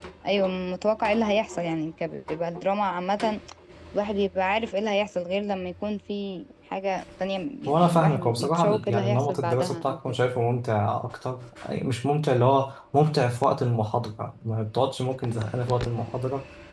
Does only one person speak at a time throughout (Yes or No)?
No